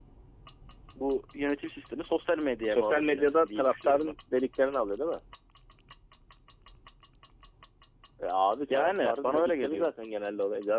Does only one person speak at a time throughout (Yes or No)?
No